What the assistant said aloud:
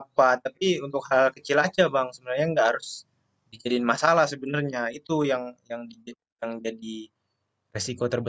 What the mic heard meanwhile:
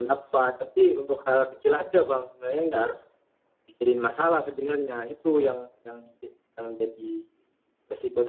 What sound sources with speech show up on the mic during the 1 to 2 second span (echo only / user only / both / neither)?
echo only